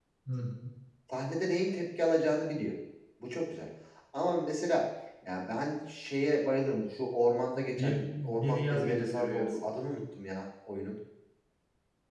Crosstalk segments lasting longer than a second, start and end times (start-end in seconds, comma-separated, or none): 7.8-9.7